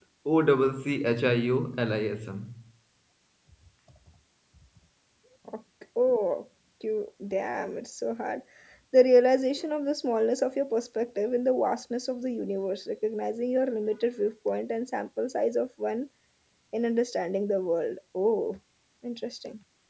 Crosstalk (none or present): none